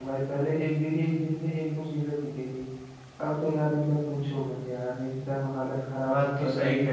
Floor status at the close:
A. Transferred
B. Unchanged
A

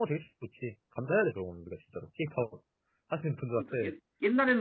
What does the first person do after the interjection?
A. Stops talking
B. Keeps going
A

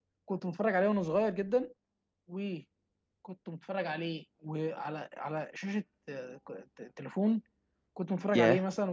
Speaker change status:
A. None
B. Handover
A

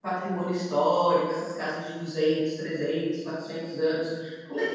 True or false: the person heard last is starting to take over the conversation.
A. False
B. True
A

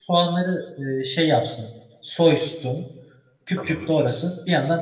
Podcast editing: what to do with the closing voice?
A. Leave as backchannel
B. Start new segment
A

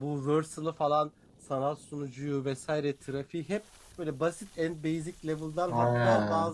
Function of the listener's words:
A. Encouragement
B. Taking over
A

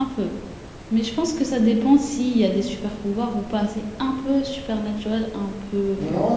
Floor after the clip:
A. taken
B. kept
A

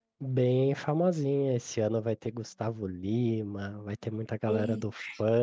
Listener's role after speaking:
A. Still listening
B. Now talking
A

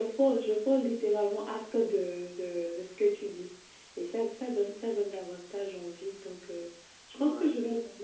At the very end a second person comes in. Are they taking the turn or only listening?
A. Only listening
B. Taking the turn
A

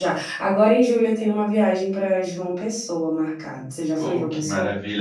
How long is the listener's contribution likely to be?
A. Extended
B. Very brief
A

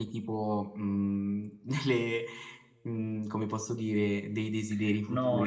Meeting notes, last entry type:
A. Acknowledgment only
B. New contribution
B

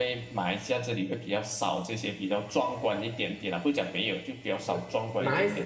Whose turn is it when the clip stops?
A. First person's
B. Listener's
B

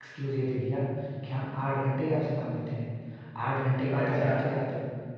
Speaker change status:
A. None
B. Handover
A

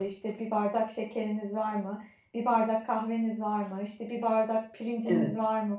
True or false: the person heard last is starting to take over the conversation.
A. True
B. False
B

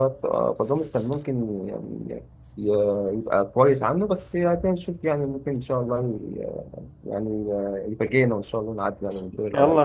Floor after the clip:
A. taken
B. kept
A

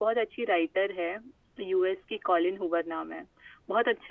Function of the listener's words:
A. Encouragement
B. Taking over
A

